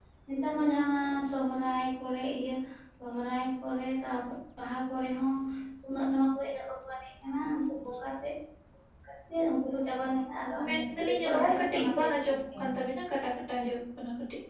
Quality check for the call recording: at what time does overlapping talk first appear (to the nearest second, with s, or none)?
11 s